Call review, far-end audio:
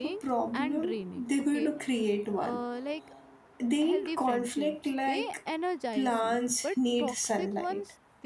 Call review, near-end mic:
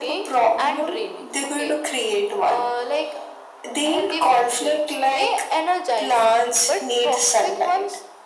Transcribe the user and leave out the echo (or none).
none